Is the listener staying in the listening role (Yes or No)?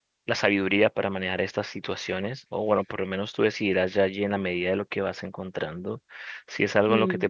Yes